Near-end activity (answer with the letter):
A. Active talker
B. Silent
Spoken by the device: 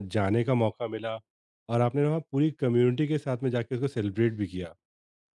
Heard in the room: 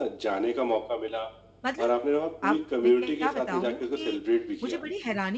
A